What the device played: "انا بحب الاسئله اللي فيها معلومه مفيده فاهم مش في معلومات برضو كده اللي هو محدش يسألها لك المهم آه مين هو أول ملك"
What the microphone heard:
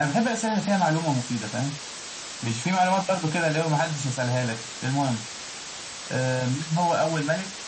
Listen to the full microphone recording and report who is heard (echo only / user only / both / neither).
echo only